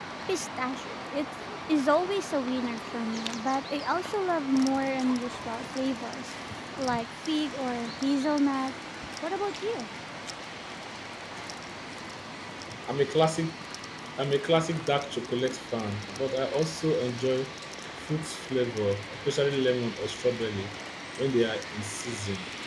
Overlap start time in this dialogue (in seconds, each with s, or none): none